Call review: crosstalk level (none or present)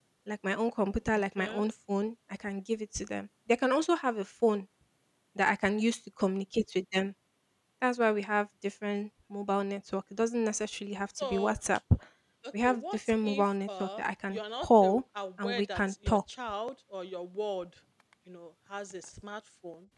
present